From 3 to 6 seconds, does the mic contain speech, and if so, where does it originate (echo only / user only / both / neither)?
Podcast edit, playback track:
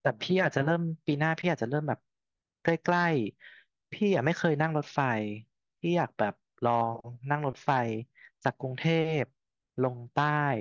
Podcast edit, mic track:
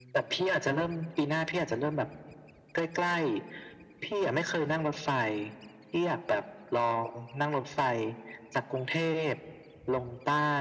echo only